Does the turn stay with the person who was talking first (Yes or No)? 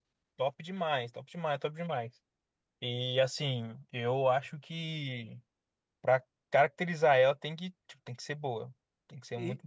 No